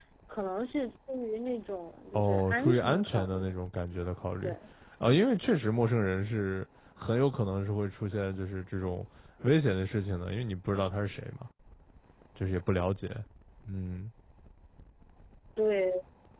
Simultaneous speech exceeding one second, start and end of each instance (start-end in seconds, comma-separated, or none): 2.1-3.5